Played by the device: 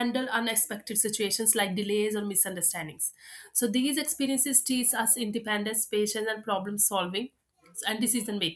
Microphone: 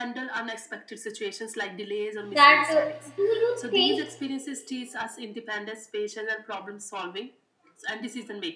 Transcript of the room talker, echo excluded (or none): That uh, do you think